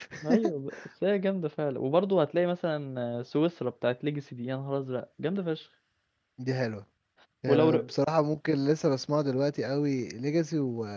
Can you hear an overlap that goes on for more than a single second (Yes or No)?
No